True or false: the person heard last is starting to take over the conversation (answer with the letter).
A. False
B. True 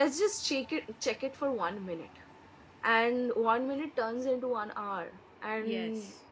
A